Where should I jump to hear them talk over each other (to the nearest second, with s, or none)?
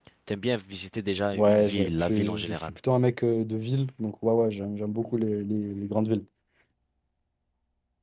1 s